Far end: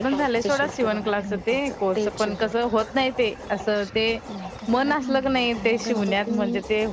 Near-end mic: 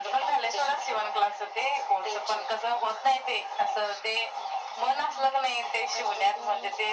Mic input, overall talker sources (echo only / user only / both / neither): echo only